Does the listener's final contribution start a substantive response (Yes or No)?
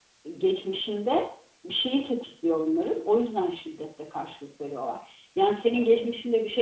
No